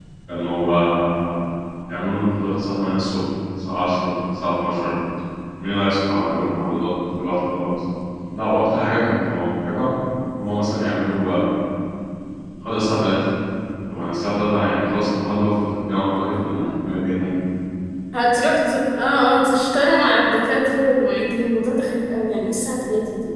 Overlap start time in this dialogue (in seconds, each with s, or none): none